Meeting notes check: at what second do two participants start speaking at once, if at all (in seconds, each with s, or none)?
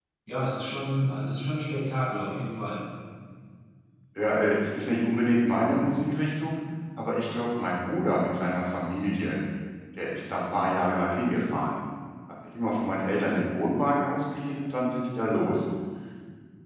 none